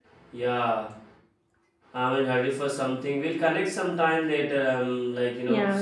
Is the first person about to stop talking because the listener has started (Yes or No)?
Yes